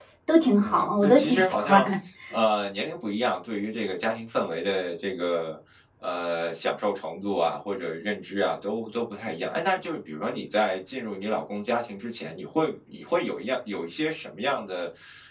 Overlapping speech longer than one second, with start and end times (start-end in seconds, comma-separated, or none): 0.6-1.8